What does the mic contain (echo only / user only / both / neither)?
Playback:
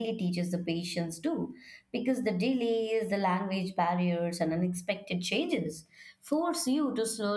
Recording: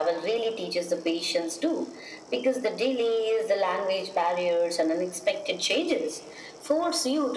echo only